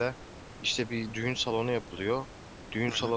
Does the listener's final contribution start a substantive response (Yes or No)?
No